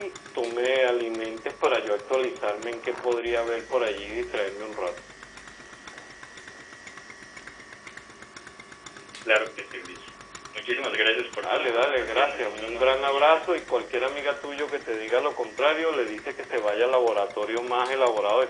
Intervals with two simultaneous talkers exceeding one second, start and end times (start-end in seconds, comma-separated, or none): 11.4-13.4